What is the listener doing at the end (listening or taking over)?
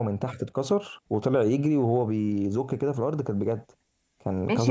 taking over